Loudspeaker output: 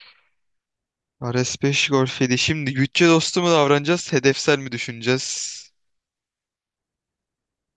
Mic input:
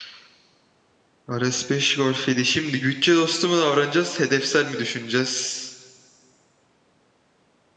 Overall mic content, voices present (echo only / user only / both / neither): echo only